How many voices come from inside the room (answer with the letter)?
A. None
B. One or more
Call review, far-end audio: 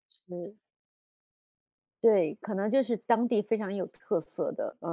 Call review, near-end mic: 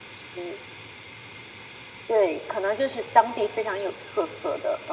A